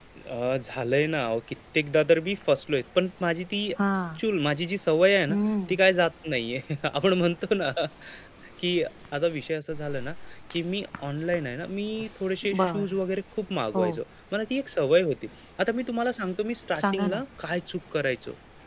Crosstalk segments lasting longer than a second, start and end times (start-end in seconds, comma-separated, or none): none